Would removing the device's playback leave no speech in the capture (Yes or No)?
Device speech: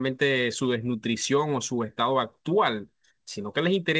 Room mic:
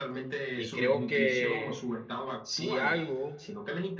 No